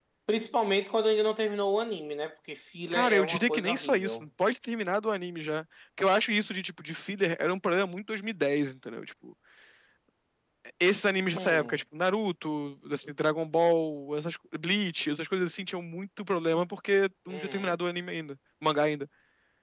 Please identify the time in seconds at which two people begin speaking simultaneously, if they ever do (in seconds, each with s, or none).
2.9 s